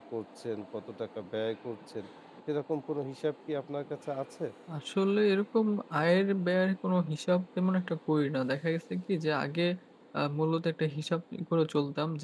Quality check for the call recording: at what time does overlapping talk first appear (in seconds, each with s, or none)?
none